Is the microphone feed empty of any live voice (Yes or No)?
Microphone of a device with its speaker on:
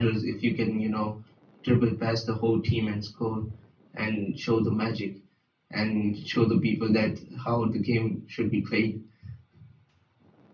Yes